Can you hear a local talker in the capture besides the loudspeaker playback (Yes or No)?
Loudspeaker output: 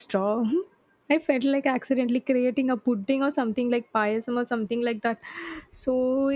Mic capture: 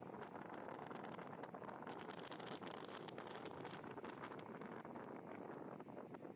No